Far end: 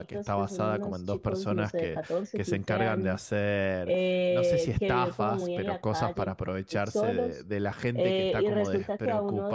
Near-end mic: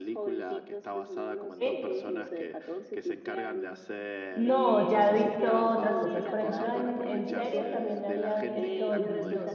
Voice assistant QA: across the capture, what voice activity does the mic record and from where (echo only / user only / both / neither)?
both